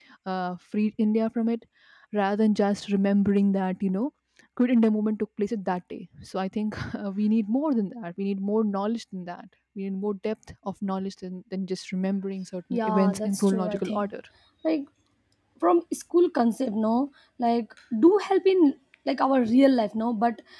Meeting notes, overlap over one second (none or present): present